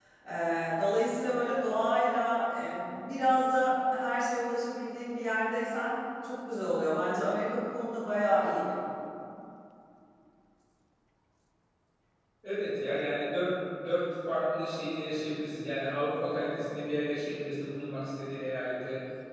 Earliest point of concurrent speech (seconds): none

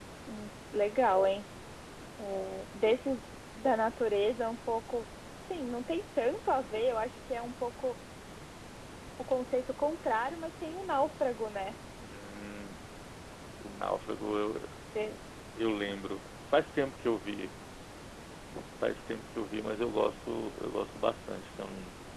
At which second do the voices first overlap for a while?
none

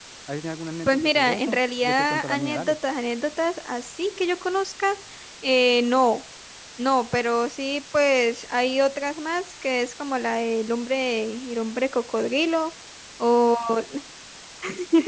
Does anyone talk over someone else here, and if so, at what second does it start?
1 s

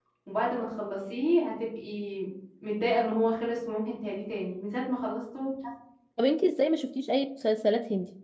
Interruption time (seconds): none

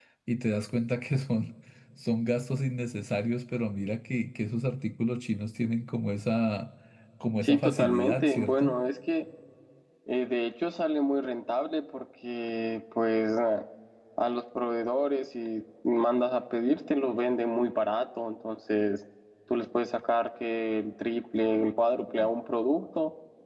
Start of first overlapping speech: 7 s

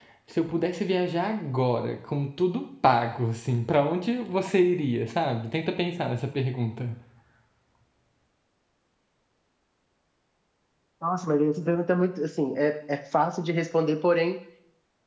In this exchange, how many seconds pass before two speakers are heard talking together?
none

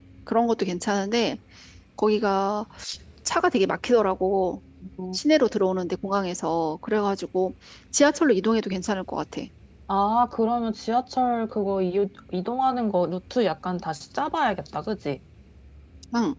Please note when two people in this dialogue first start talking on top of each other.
none

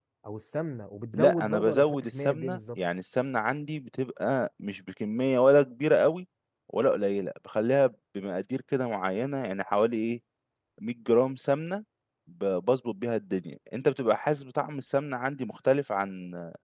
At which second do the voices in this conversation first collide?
1 s

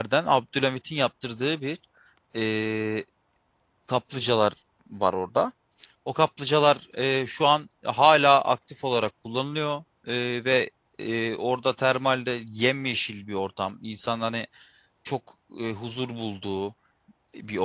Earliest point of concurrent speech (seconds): none

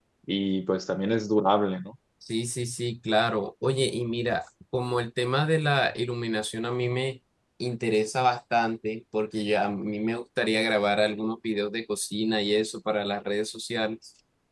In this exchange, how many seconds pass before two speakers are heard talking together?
none

